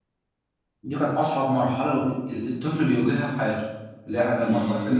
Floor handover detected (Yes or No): Yes